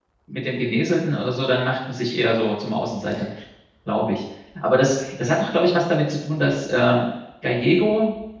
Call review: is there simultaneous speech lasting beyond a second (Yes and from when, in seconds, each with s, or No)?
No